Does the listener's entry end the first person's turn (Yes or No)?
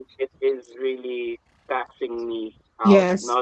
No